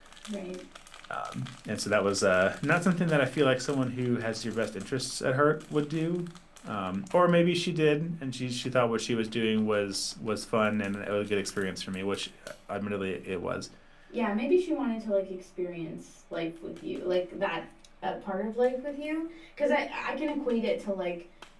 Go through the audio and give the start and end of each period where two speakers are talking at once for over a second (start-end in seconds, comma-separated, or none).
none